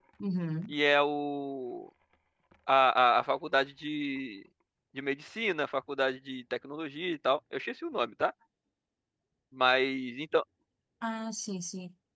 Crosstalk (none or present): none